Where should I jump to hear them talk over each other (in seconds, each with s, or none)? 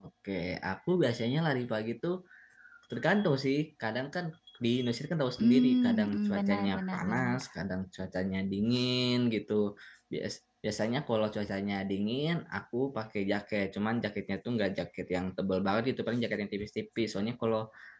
5.4 s